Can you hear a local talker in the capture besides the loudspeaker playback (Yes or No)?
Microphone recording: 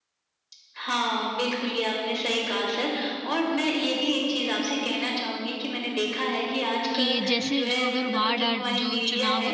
Yes